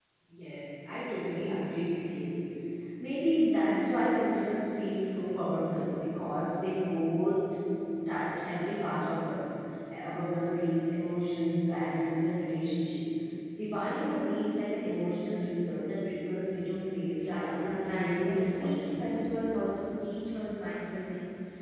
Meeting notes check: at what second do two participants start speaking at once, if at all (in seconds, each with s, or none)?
17.1 s